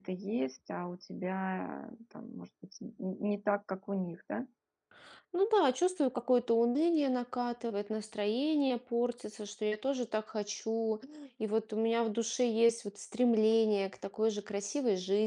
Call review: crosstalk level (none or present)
none